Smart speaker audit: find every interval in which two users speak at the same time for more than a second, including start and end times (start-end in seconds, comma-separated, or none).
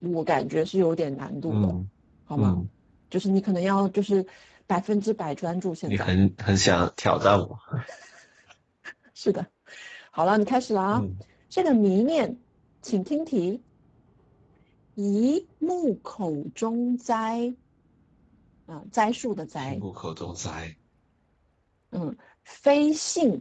none